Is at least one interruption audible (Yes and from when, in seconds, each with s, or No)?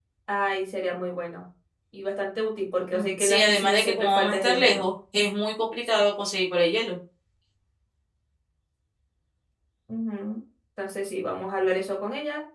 Yes, from 2.9 s